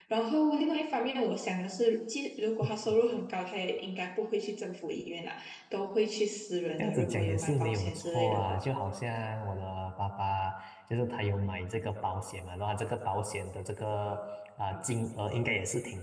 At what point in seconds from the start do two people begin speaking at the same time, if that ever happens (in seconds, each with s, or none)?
6.8 s